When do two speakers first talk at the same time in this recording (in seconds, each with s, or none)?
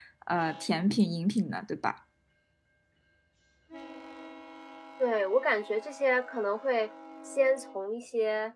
none